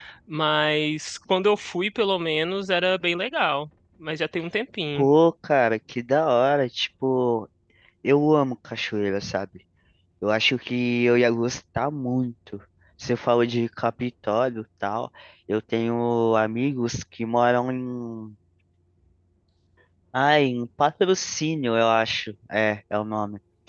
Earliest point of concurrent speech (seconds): none

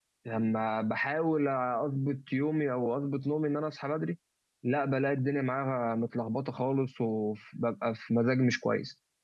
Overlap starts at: none

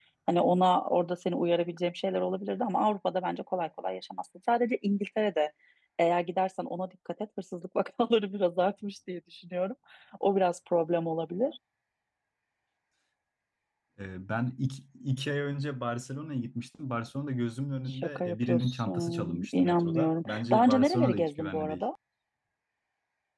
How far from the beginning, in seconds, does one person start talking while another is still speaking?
17.9 s

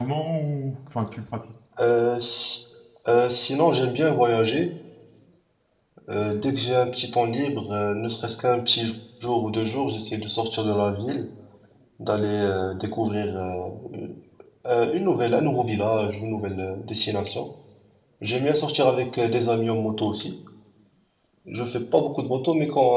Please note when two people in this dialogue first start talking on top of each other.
none

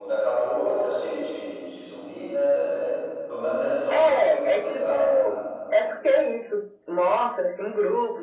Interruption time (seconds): 3.9 s

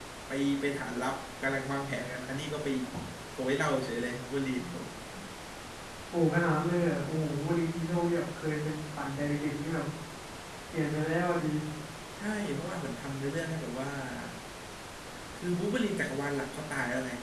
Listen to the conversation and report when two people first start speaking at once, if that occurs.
none

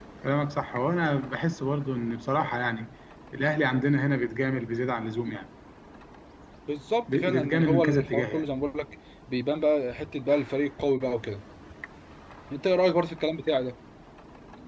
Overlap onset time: 7.1 s

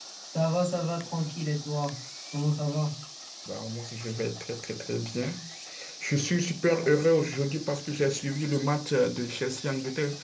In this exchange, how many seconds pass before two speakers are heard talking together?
none

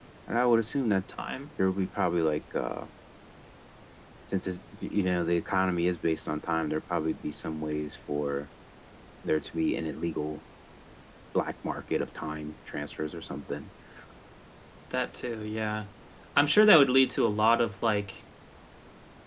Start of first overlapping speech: none

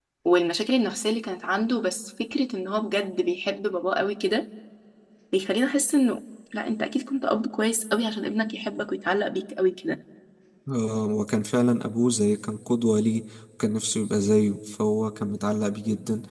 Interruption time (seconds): none

